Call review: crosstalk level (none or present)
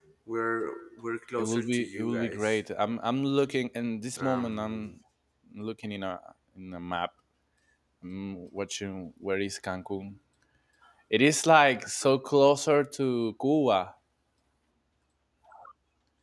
present